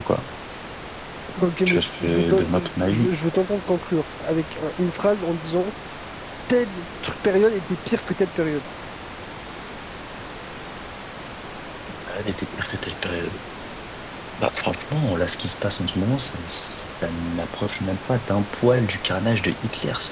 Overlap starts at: 1.6 s

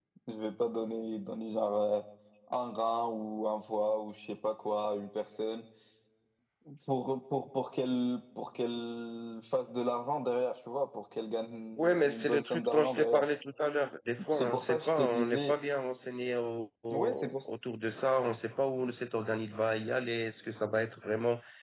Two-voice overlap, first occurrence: 11.8 s

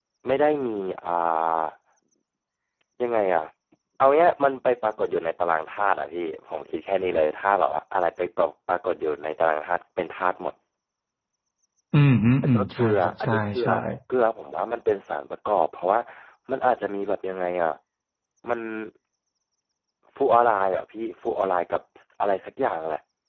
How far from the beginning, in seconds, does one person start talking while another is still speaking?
12.4 s

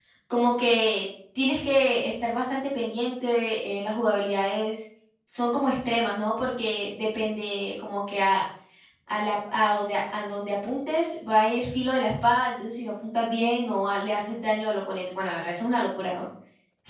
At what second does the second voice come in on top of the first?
none

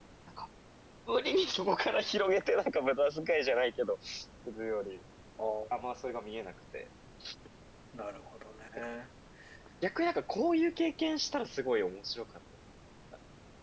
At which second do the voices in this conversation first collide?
none

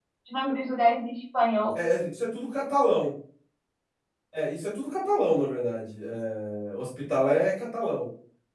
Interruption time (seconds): none

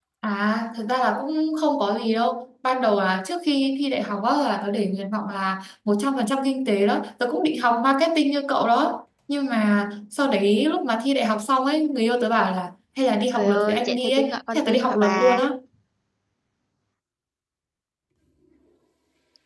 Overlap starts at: 13.3 s

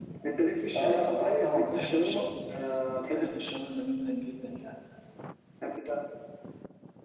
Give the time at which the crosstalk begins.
0.8 s

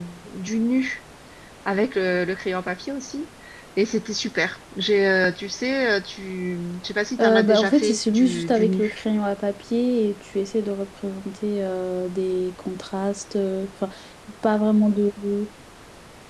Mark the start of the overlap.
7.2 s

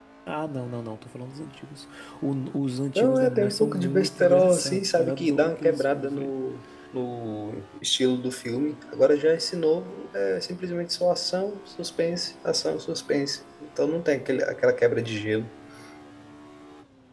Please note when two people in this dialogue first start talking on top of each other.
3.0 s

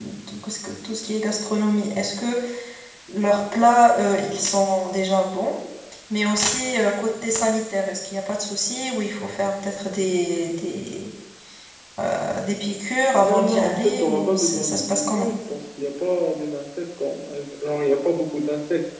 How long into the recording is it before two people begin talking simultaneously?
13.2 s

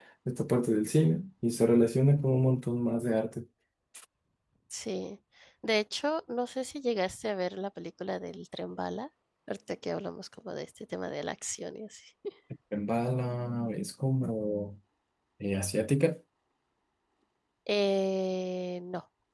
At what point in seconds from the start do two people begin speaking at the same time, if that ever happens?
none

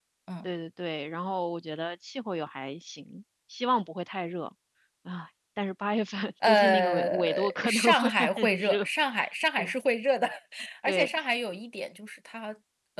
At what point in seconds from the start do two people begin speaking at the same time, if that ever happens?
6.4 s

